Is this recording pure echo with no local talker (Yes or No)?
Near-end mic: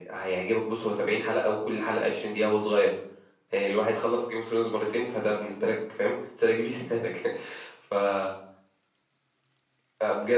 Yes